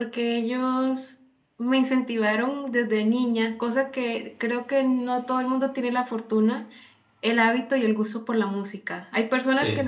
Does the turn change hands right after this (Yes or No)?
No